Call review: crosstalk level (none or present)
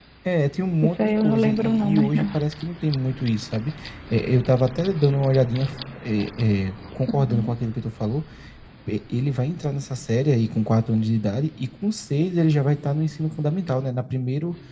present